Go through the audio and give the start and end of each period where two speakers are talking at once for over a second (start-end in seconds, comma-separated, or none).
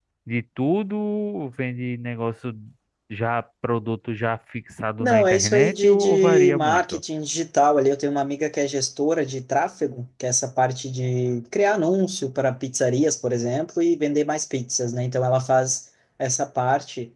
5.0-7.0